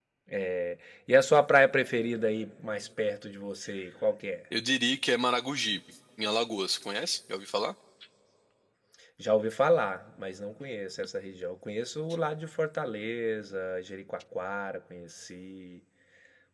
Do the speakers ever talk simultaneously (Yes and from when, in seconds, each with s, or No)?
No